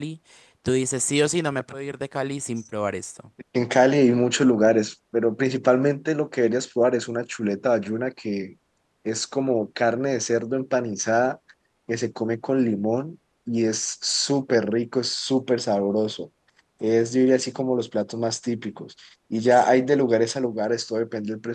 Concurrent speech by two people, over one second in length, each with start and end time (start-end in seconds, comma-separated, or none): none